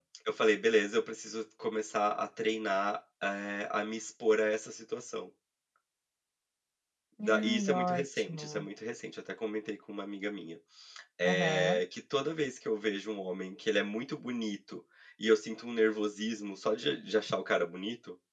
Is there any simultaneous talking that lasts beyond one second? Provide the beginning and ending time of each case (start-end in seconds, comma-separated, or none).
7.2-8.7